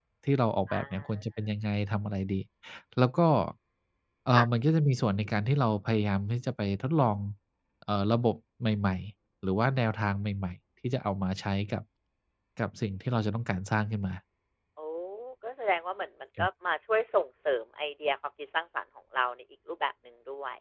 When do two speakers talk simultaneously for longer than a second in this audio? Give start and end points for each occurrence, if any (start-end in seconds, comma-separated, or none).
none